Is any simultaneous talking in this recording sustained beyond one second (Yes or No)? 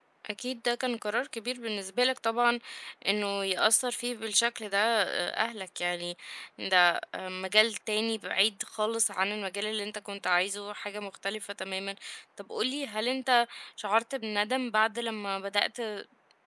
No